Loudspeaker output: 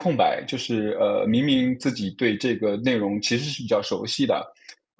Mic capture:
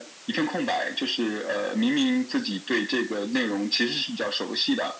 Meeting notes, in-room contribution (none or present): none